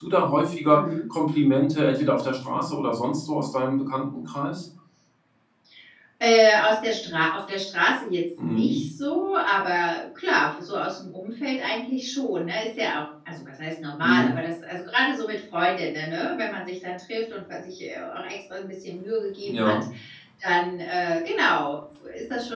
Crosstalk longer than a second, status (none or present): none